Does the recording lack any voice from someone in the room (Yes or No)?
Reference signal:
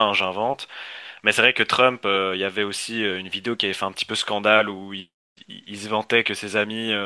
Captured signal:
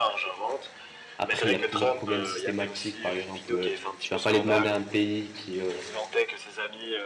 No